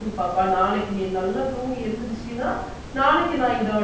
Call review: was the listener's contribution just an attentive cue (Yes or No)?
Yes